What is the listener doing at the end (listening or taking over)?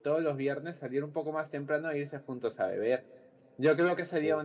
listening